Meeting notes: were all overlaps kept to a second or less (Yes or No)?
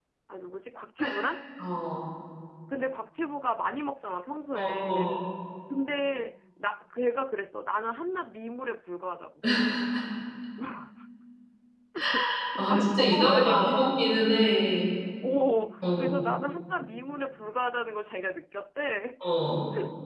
No